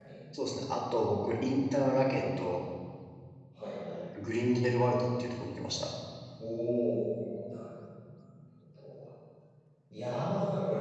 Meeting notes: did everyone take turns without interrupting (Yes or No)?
Yes